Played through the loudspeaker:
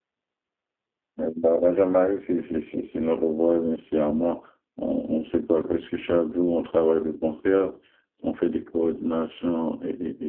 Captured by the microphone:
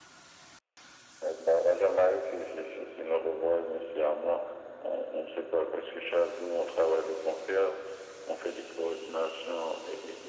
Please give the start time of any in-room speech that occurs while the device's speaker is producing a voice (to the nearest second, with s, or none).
none